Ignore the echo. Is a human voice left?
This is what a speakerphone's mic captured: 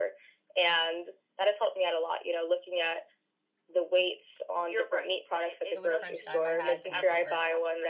Yes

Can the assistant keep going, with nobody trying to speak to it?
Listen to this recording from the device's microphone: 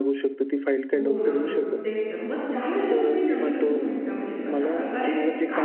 No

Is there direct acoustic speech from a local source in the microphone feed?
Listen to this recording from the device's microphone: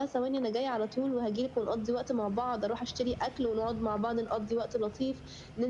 No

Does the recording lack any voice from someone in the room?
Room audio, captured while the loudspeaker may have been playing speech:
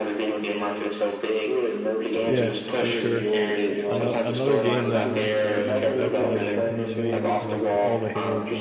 No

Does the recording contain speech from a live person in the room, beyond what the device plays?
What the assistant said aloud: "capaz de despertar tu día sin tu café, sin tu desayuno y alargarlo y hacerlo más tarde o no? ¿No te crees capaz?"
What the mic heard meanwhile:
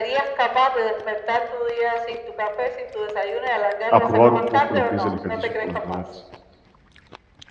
Yes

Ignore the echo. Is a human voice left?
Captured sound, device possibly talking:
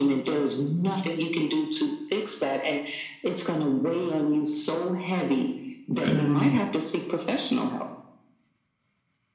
Yes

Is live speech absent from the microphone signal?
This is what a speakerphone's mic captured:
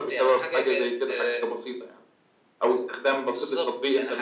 Yes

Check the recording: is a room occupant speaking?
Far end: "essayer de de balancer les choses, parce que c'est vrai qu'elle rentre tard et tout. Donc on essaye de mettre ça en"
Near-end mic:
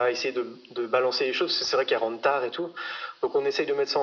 No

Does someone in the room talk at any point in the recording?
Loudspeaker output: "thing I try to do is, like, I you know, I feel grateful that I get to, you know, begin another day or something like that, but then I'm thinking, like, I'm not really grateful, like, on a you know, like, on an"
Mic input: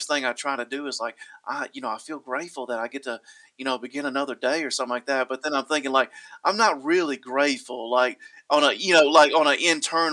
No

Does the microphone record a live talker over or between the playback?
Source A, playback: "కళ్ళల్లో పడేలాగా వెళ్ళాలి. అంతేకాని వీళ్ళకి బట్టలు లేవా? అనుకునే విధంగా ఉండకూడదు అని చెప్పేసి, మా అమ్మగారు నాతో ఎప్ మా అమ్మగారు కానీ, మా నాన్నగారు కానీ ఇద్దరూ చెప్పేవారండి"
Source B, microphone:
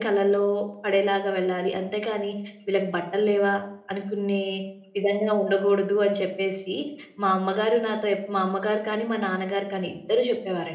No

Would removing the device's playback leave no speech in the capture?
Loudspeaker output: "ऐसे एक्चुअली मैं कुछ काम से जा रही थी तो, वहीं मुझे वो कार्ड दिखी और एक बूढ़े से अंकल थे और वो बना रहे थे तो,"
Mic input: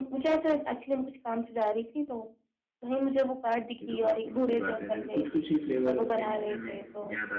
No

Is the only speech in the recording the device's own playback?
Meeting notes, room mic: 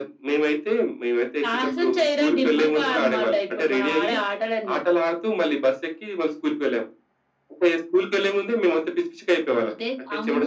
Yes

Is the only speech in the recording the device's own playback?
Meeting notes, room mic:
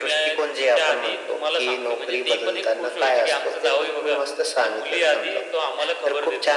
Yes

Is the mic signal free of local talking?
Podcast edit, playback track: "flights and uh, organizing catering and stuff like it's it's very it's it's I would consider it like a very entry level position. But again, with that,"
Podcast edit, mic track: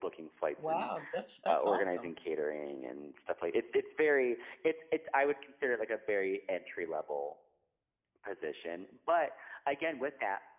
No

